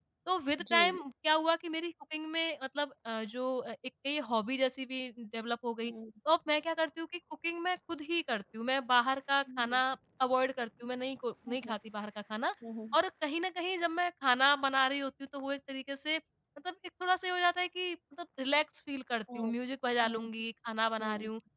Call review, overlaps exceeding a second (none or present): none